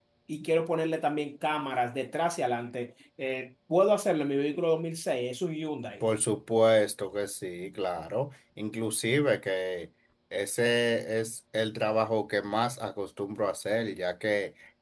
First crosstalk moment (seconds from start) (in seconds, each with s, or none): none